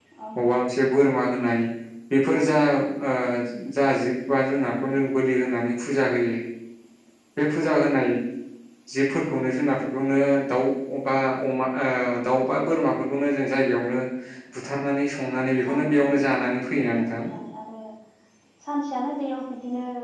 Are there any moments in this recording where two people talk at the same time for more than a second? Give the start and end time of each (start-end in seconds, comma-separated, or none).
15.7-17.2